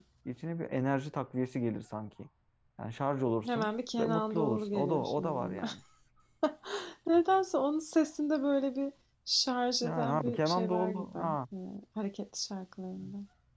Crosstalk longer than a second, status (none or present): present